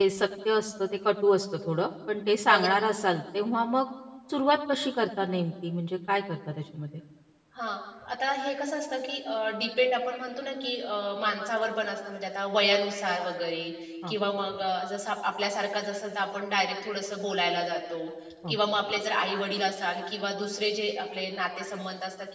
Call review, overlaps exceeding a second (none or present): none